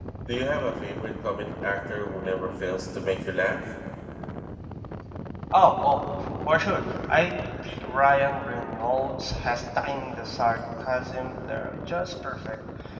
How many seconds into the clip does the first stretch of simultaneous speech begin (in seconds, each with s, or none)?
none